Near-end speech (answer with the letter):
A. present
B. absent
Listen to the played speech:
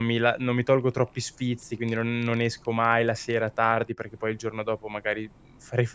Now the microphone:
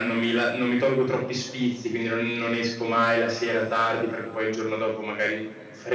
B